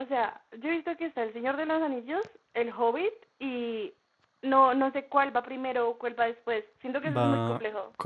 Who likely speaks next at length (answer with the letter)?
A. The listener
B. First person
A